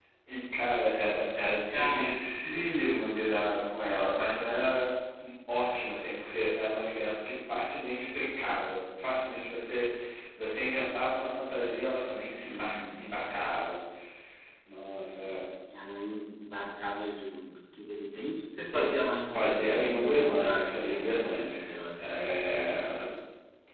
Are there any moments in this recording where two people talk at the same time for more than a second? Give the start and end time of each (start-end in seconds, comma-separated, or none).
1.7-3.1, 19.3-21.6